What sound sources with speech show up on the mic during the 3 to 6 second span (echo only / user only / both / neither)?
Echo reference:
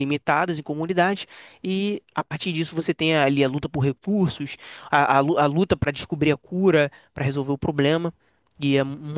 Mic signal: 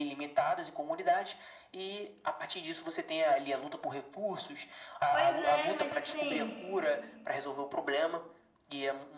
both